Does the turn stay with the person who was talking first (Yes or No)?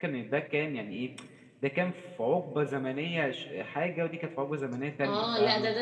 No